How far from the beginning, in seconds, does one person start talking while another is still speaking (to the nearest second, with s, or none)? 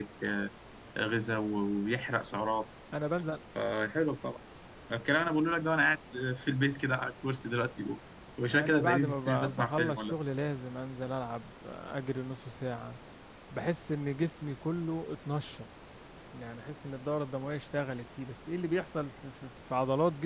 8 s